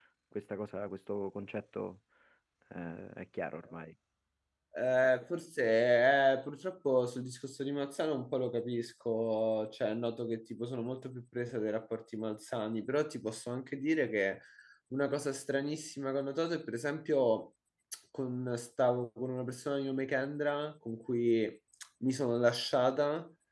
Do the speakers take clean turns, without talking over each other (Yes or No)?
Yes